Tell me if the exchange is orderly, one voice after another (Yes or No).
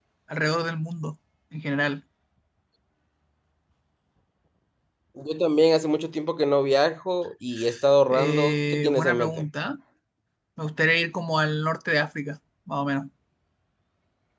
No